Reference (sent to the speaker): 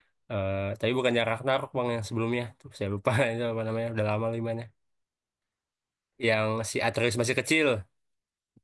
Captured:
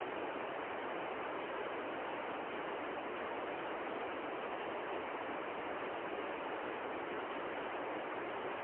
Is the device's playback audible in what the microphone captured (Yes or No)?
No